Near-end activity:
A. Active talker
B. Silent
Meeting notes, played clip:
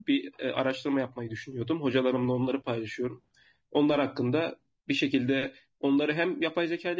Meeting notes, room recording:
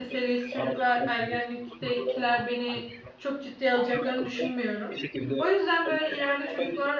A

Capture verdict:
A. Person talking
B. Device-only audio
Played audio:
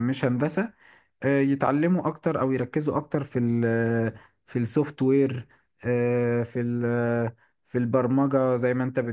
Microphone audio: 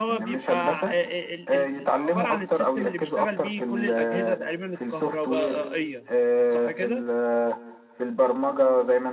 A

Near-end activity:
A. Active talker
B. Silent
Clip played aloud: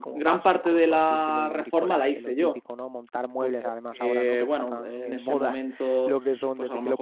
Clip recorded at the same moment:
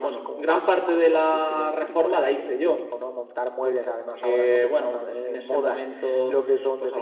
B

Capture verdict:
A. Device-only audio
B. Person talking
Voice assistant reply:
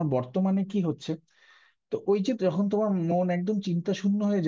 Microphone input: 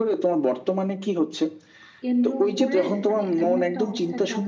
B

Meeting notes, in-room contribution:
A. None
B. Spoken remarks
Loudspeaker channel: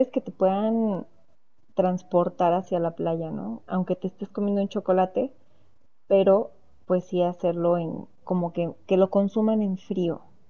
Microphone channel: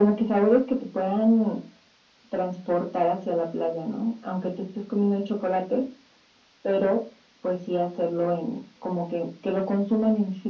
A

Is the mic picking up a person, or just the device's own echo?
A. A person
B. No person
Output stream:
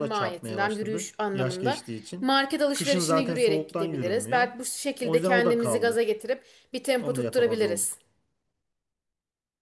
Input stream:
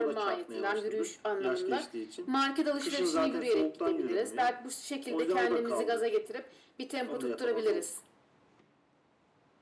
B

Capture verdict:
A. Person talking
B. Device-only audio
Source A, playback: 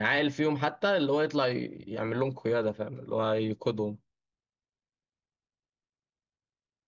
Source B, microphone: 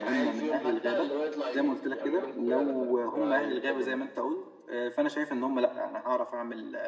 A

